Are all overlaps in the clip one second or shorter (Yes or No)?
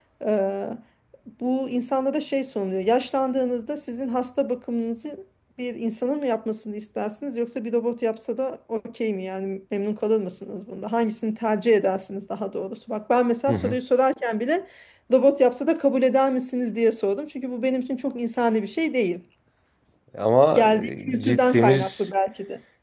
No